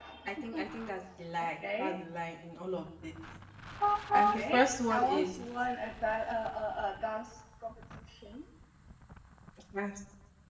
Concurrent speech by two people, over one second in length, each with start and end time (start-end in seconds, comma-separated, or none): 4.1-5.4